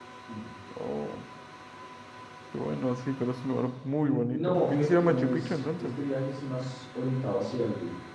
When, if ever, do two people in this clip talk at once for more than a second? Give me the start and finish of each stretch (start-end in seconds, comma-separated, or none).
4.0-6.0